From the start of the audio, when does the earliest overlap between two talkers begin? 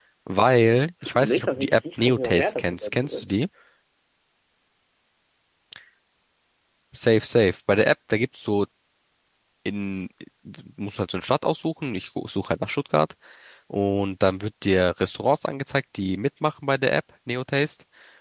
1.2 s

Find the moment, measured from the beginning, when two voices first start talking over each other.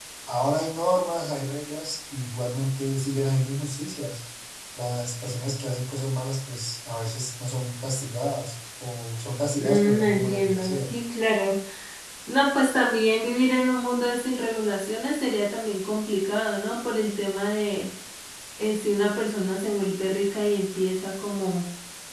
9.6 s

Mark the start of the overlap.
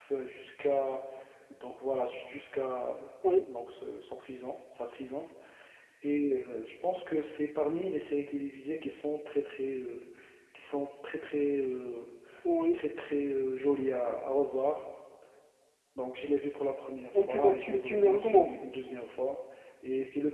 17.1 s

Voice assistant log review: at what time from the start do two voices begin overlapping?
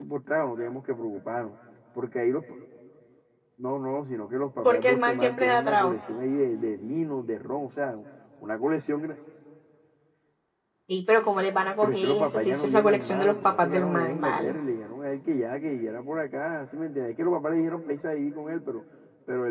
4.6 s

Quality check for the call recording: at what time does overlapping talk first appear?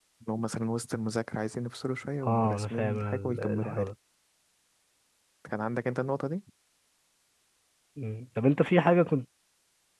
2.2 s

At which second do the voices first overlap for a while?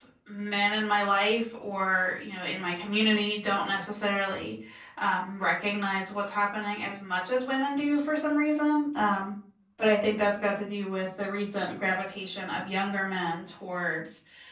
none

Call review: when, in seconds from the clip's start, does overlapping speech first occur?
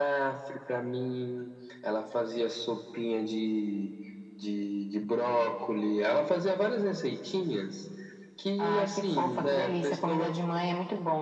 8.6 s

